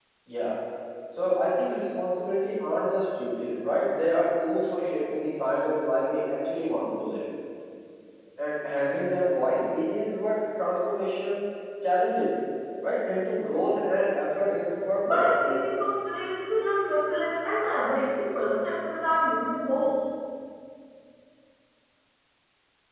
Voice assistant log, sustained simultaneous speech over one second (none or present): none